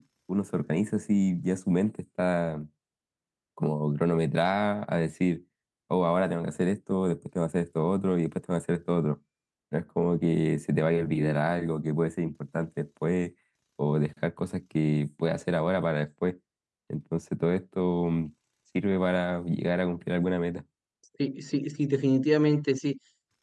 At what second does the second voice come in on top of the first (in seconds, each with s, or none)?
none